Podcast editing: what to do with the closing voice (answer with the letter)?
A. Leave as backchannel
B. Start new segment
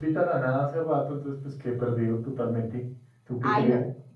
B